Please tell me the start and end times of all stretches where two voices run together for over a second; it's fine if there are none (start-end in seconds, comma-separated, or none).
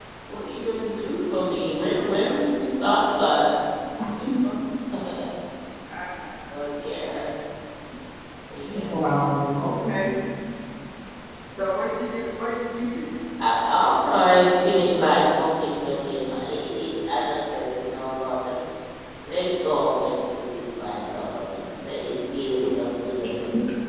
none